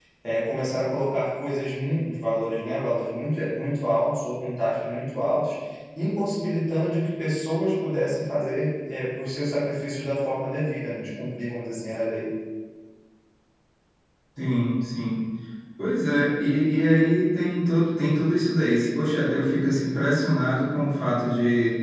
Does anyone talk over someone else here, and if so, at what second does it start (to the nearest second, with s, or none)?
none